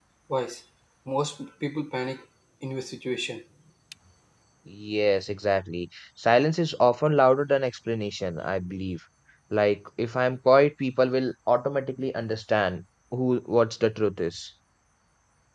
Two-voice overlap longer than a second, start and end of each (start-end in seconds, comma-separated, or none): none